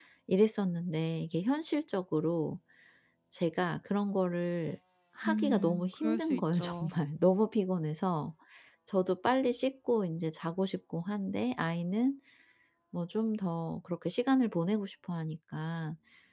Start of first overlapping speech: 5.2 s

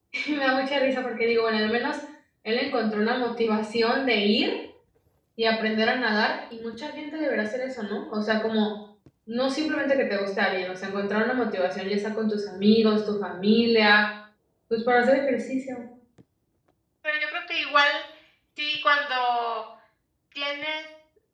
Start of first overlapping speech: none

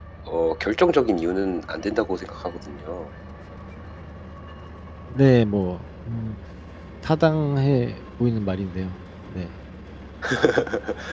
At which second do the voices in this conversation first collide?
none

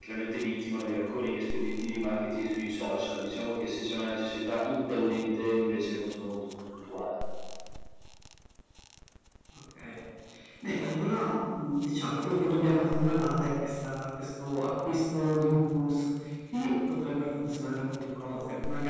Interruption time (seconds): none

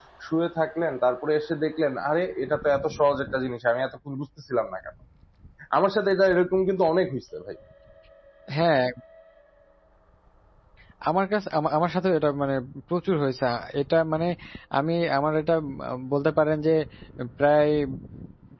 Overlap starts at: none

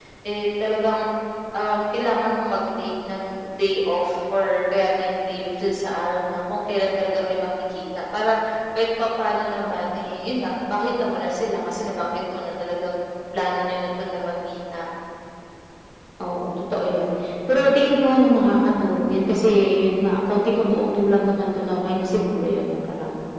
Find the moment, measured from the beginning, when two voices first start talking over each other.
none

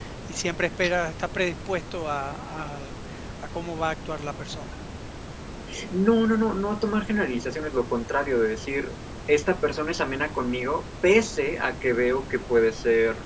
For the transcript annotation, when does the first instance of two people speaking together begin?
none

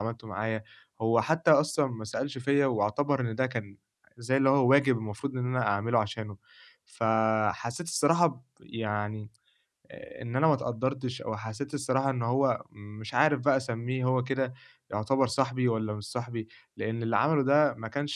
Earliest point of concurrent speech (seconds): none

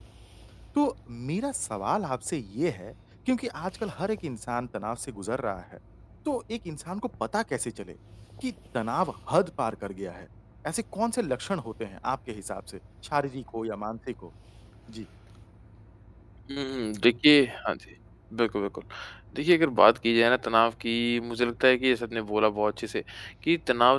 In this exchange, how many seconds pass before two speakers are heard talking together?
none

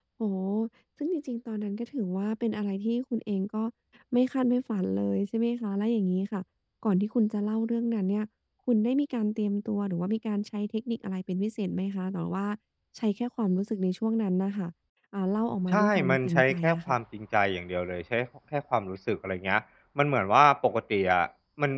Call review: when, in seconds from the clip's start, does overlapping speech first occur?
15.7 s

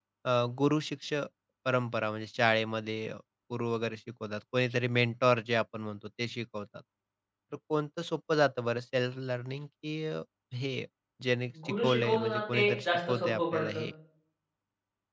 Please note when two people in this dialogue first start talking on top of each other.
11.7 s

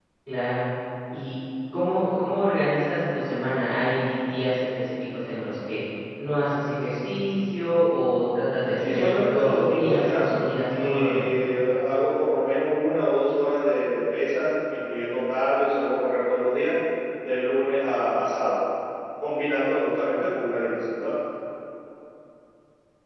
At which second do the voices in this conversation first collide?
8.8 s

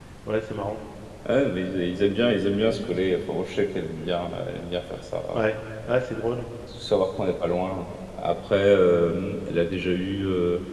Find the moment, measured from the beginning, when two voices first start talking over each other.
none

